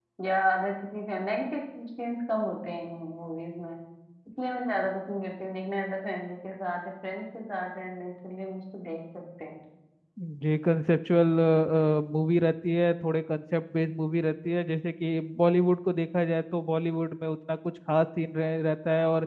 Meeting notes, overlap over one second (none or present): none